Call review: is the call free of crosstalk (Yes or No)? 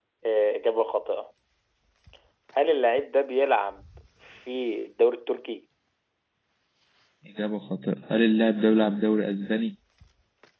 Yes